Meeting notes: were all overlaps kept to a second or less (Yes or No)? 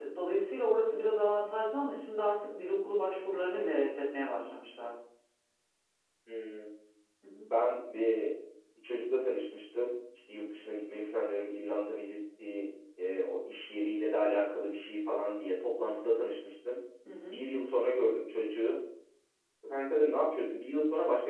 Yes